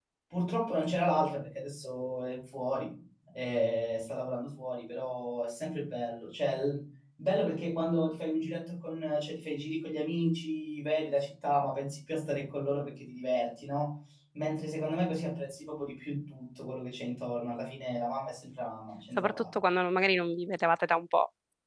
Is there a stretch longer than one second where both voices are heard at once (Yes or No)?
No